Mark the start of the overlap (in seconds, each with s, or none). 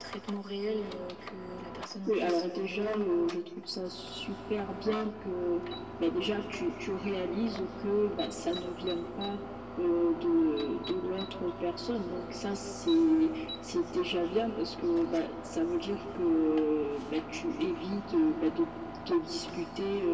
2.1 s